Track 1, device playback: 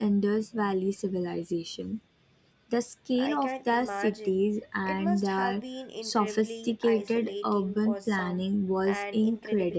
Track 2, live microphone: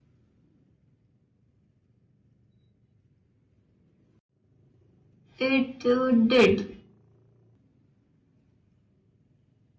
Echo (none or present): none